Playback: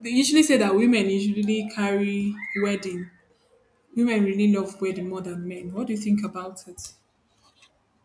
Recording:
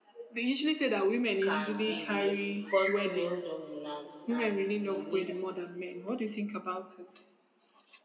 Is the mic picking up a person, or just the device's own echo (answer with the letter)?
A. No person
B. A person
B